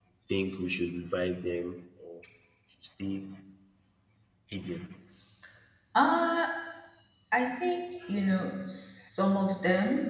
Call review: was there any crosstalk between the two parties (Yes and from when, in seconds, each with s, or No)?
No